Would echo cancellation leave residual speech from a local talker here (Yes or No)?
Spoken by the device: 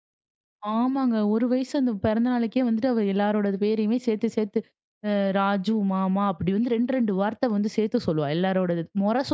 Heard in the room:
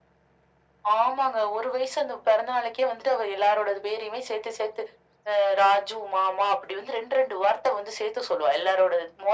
No